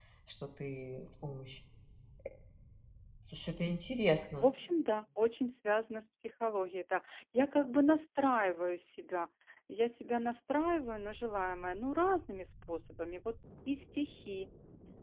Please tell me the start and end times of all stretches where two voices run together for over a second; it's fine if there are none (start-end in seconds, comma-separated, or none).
none